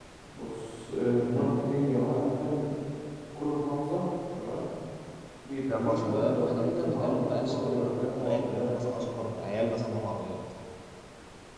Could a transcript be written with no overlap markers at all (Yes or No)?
No